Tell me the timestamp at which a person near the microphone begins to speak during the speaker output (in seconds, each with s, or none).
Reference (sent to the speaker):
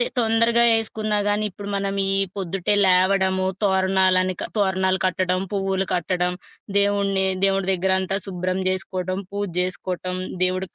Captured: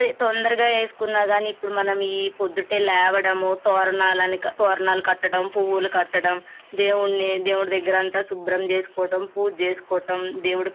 none